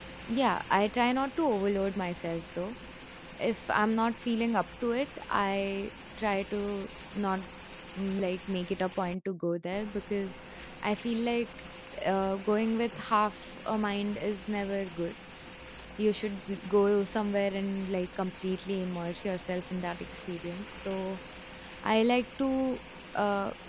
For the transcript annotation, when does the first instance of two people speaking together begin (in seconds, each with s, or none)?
none